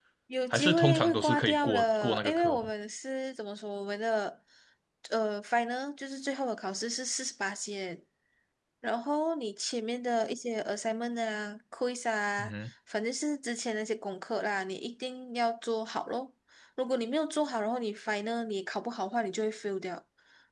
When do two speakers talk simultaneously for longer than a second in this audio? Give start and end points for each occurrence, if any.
0.5-2.7

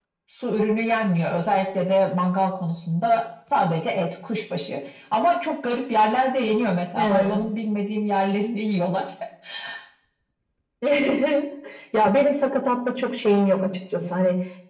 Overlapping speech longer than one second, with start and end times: none

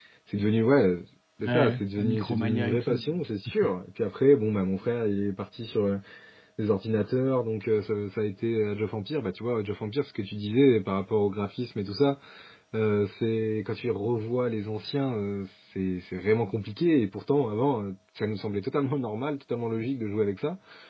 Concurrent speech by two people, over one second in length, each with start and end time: 1.4-3.0

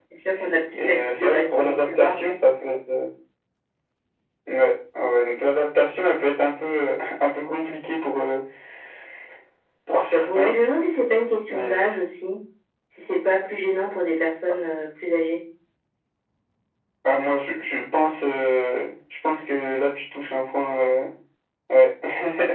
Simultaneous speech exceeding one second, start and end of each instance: 0.8-2.2

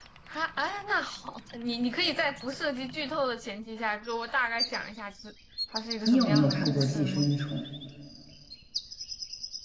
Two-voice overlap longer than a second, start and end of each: 6.1-7.3

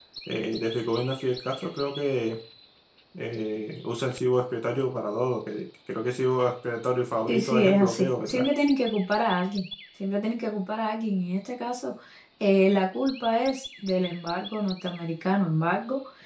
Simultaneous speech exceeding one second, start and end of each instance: 7.3-8.5

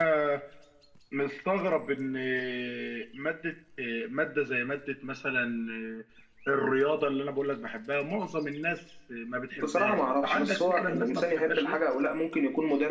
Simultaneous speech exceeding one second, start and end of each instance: 9.6-11.8

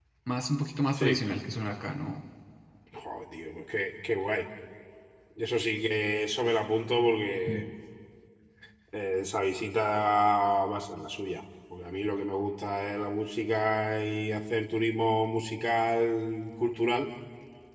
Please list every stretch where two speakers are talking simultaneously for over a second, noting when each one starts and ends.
none

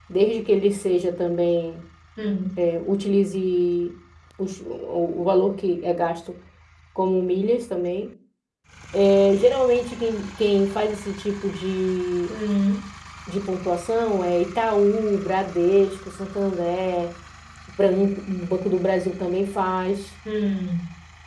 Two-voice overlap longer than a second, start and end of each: none

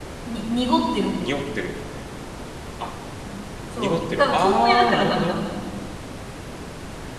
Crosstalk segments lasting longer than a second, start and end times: 3.8-5.4

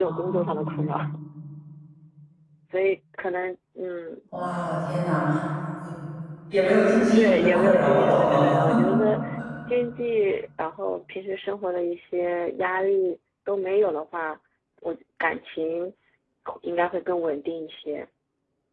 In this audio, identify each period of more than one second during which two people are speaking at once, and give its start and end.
6.8-8.5

